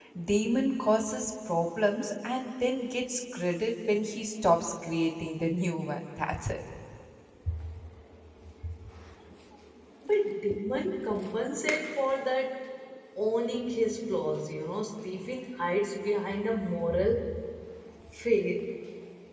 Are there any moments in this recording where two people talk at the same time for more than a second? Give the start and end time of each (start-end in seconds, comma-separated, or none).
none